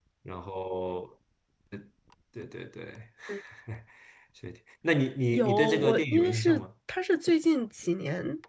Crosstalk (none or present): present